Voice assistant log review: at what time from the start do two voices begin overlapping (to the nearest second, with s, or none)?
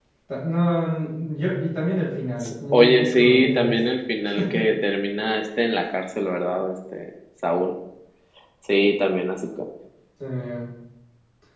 2 s